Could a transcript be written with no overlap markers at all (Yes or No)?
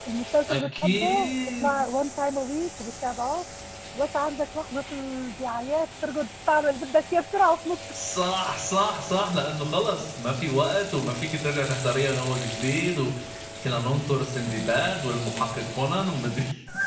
No